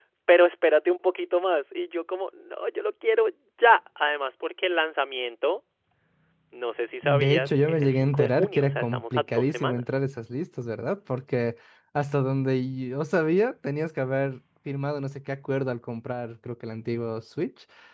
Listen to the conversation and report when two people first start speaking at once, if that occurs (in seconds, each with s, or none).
7.0 s